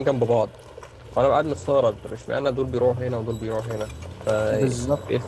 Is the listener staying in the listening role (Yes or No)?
No